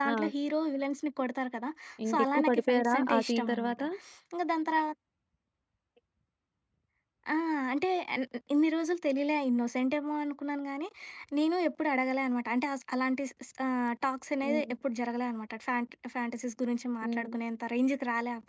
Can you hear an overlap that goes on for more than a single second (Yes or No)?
Yes